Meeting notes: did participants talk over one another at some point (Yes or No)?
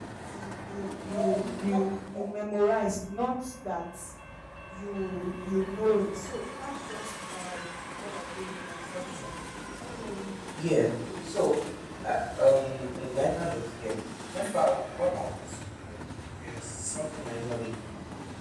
Yes